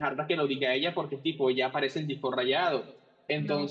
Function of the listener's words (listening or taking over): listening